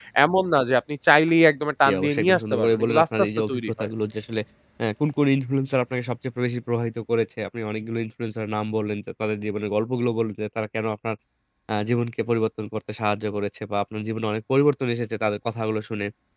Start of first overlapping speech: 1.8 s

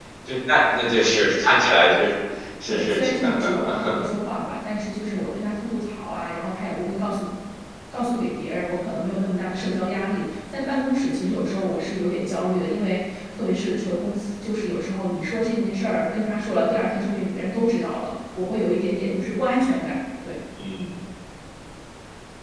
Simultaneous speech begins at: 2.7 s

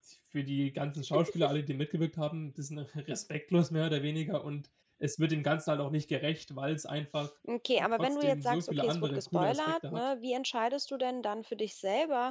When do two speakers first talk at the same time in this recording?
8.0 s

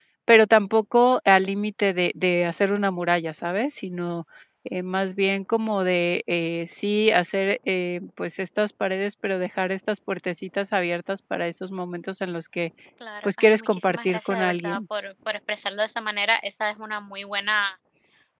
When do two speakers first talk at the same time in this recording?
13.2 s

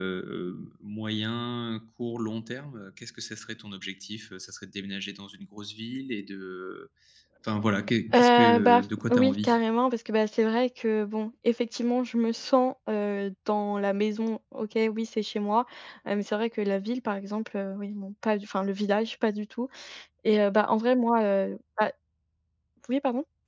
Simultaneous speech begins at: 8.1 s

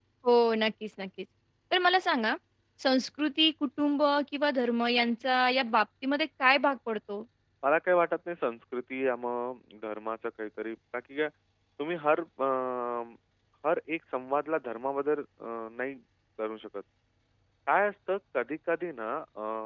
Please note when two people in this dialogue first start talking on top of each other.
none

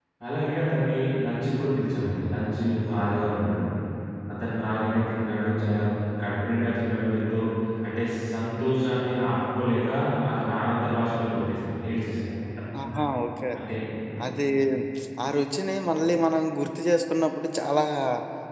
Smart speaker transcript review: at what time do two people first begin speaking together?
none

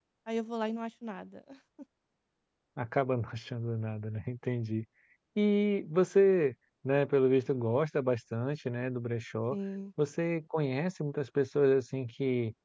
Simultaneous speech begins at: none

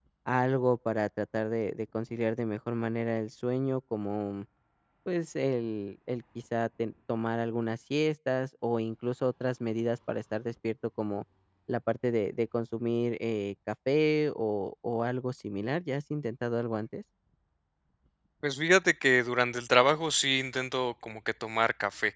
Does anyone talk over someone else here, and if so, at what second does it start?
none

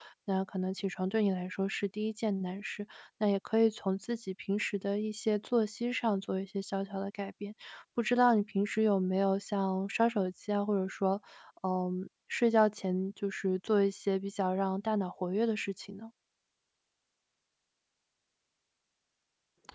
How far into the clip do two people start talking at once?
none

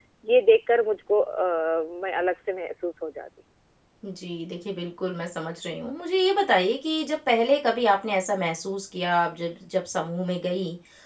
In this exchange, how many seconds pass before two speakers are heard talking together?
none

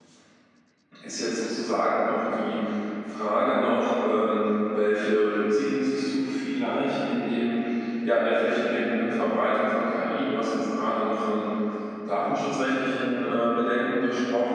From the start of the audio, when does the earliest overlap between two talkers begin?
none

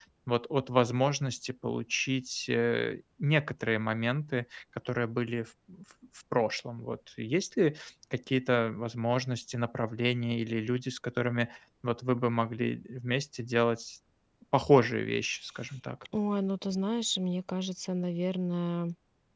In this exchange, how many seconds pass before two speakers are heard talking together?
none

